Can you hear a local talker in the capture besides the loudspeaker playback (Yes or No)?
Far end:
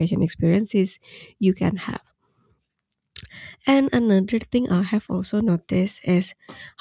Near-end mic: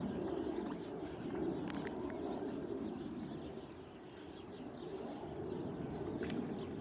No